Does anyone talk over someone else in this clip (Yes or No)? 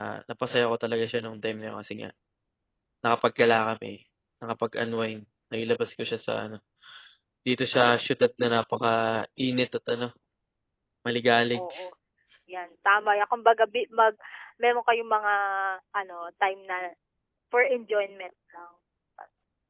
No